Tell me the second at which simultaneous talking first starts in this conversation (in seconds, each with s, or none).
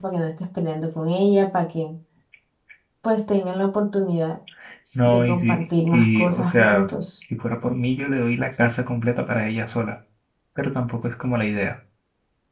5.0 s